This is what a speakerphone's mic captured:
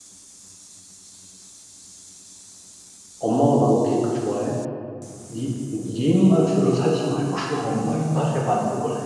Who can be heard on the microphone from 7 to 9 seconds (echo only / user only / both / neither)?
user only